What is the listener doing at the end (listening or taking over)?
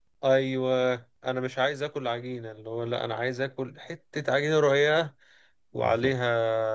listening